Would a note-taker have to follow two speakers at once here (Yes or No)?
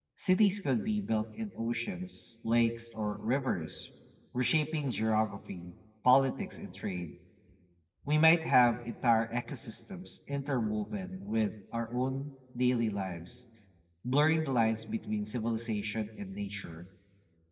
No